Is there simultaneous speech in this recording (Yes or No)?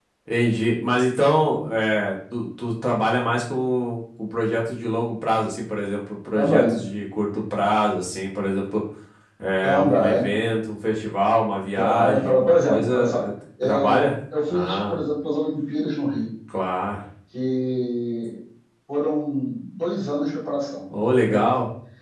Yes